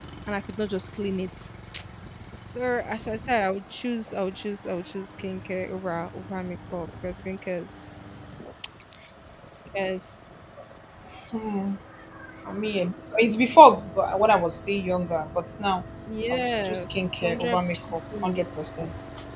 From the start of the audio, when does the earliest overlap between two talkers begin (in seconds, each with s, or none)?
16.3 s